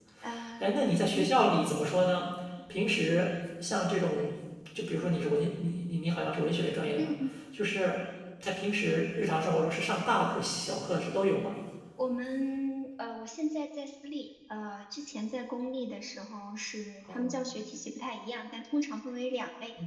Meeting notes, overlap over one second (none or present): none